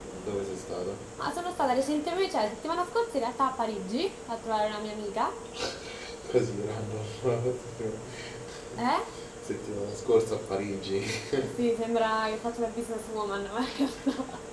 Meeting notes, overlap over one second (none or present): none